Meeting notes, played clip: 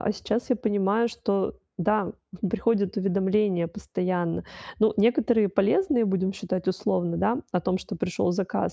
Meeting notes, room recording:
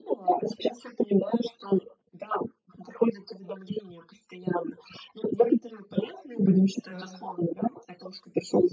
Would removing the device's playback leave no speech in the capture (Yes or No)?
No